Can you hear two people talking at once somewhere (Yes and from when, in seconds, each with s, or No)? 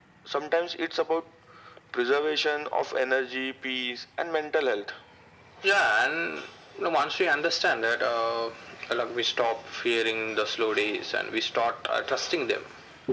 No